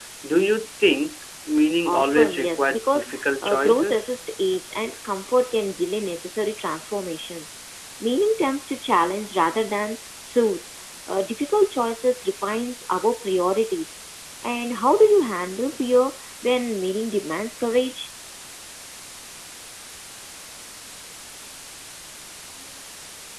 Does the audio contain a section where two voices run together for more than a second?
Yes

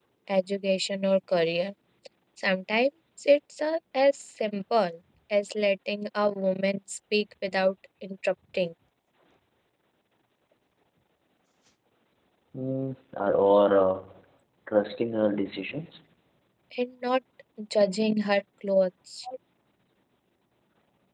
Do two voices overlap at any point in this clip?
No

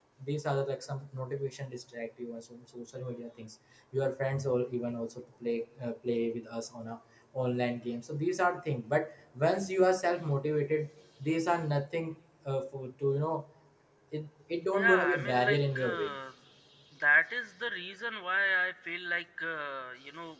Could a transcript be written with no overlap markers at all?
No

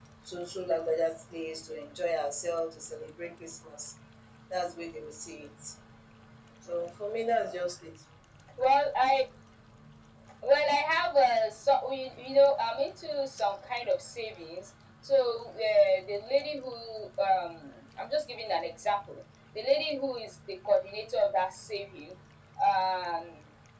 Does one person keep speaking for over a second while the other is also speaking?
No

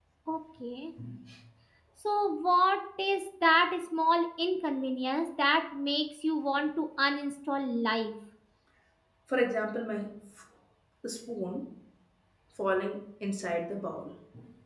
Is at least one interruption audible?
No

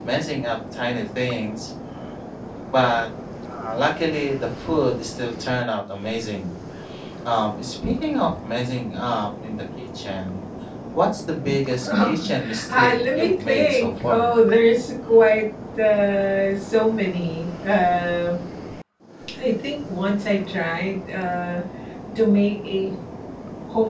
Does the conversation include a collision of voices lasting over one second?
Yes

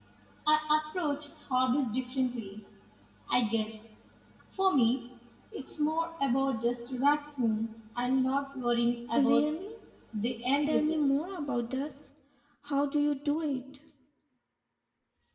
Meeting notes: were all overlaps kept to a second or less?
Yes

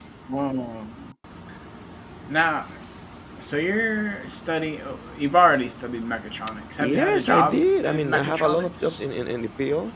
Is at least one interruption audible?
Yes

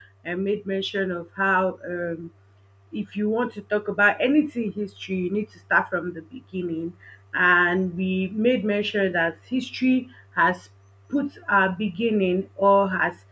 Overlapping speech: No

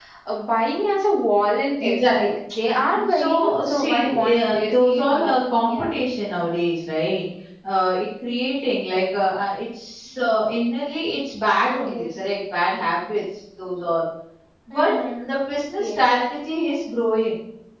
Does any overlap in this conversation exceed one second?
Yes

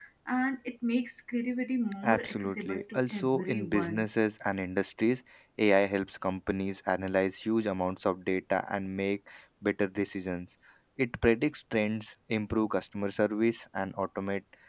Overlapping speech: Yes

